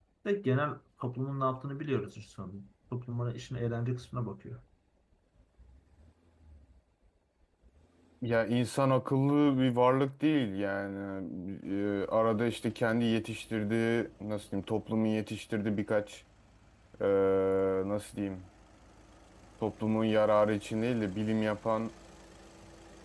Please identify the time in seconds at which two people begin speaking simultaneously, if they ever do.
none

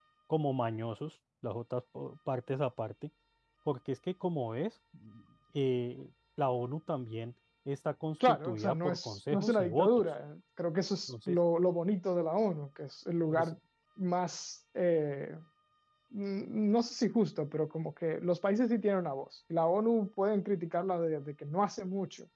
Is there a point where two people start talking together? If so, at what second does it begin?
8.3 s

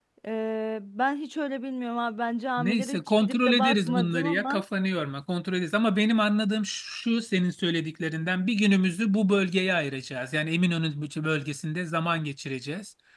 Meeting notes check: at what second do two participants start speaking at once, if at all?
2.6 s

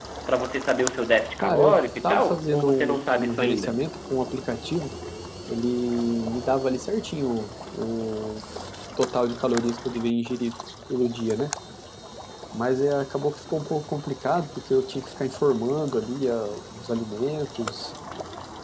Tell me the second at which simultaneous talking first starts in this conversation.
1.4 s

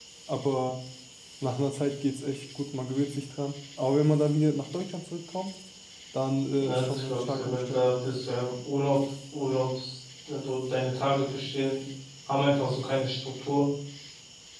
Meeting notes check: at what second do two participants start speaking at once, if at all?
6.6 s

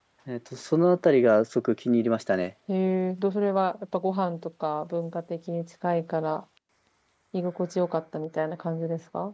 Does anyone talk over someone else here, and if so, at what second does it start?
none

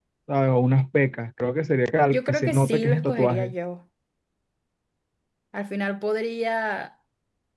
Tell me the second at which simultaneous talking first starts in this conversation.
2.1 s

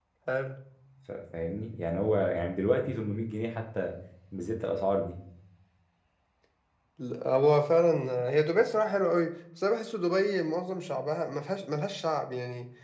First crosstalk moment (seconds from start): none

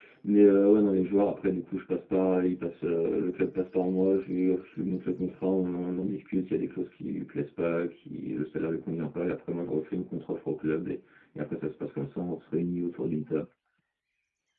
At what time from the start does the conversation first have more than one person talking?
none

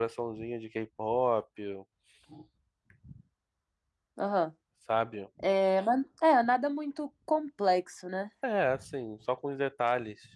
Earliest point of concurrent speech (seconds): none

